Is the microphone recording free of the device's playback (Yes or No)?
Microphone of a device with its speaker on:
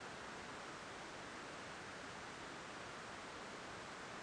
Yes